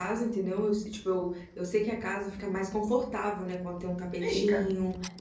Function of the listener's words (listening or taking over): listening